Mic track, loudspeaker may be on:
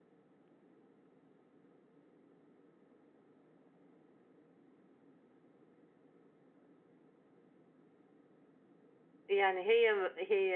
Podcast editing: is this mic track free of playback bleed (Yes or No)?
Yes